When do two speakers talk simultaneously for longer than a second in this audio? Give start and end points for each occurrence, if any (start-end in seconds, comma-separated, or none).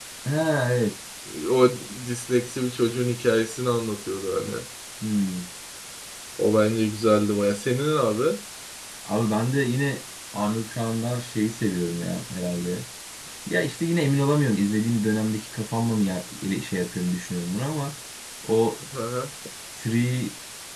none